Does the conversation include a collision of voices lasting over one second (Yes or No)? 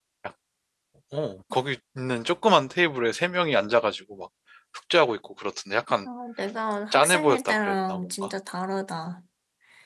Yes